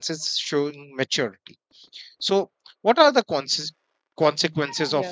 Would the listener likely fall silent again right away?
Yes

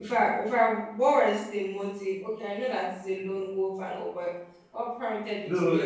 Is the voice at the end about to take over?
Yes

